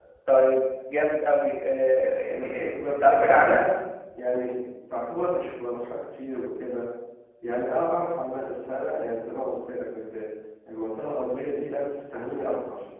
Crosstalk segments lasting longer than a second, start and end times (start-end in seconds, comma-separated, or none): 2.3-3.6